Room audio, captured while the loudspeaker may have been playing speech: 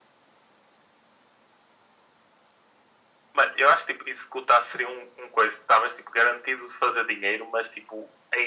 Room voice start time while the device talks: none

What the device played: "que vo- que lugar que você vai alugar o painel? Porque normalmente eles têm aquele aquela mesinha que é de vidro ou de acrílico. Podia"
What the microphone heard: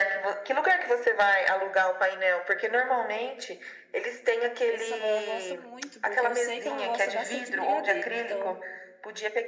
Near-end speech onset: 5 s

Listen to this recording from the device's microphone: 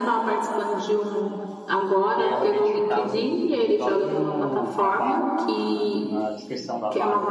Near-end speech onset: 2 s

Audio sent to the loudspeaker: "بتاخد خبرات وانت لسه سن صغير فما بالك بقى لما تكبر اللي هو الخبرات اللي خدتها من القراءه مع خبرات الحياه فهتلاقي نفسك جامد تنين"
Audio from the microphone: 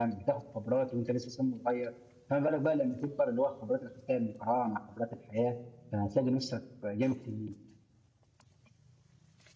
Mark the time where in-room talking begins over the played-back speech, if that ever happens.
none

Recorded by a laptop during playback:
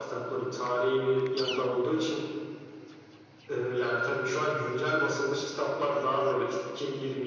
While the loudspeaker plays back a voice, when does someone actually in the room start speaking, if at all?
none

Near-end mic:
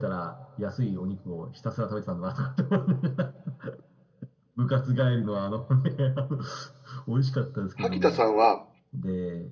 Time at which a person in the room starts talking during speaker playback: 8 s

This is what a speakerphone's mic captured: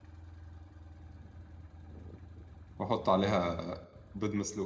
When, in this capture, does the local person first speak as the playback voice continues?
3 s

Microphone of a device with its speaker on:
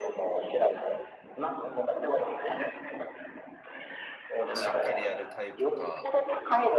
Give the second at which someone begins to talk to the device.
5 s

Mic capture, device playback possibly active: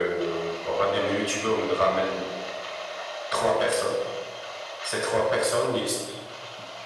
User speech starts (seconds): none

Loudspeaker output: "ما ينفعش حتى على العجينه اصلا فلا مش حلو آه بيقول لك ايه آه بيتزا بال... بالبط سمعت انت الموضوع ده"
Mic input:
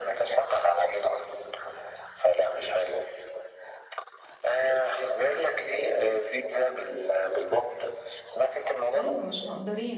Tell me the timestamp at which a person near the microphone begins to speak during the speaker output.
9 s

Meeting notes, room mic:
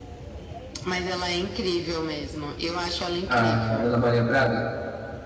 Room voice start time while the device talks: 3 s

